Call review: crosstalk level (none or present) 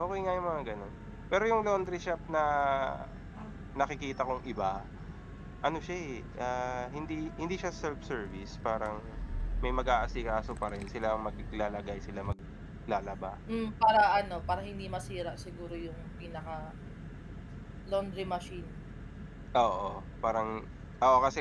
none